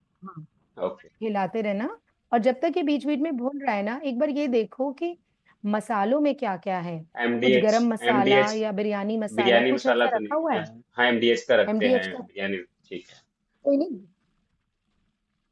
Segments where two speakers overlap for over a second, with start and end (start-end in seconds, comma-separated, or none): 9.4-10.7